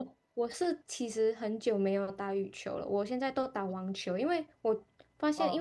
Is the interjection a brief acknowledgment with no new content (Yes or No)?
Yes